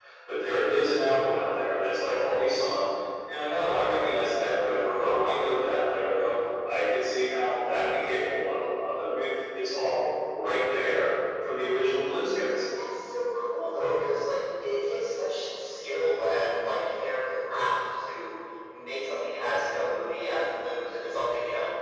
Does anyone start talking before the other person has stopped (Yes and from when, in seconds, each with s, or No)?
No